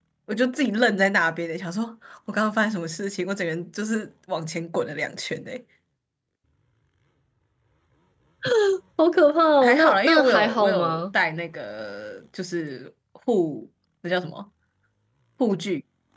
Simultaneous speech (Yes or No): Yes